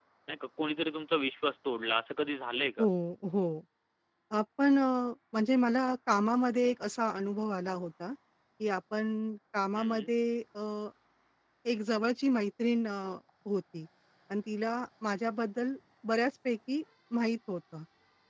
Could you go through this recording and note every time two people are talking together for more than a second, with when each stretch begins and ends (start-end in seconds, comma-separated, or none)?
none